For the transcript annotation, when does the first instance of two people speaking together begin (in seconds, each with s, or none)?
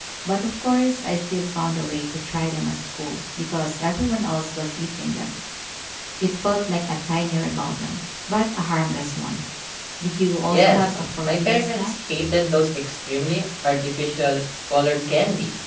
10.5 s